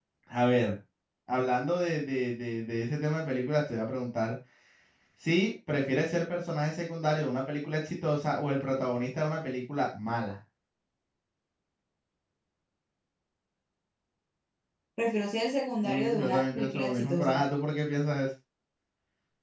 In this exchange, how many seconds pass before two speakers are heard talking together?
15.8 s

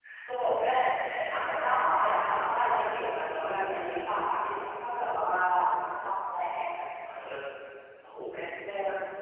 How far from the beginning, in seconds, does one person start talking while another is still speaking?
1.6 s

